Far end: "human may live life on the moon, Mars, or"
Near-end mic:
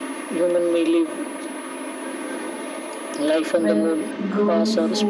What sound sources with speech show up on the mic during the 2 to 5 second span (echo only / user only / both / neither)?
both